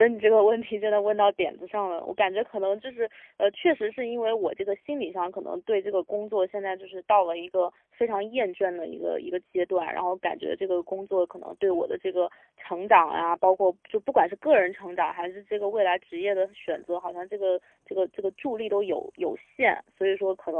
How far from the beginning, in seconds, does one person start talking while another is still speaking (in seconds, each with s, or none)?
none